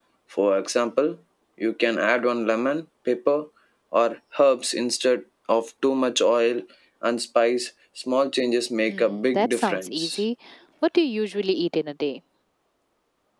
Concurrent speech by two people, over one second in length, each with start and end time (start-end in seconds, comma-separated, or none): 8.9-10.2